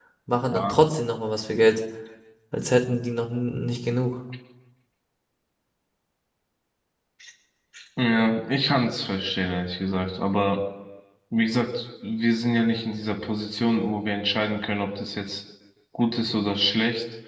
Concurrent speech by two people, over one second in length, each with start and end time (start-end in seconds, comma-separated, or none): none